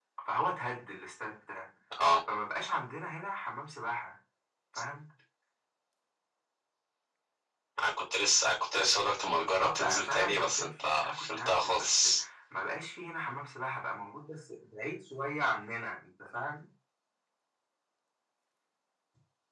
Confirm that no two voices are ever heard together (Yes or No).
No